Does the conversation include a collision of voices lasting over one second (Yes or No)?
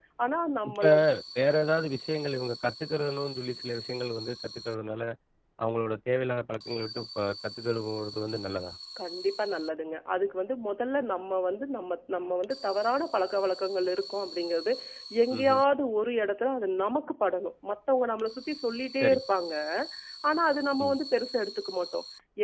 No